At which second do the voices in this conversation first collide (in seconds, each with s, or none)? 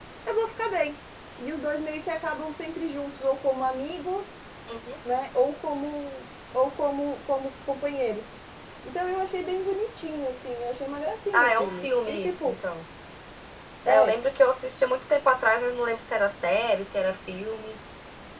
11.3 s